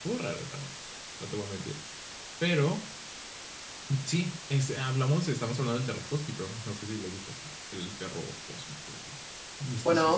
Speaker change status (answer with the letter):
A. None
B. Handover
B